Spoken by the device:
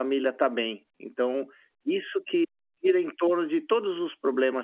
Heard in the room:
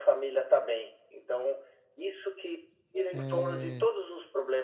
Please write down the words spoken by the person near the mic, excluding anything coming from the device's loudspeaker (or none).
eh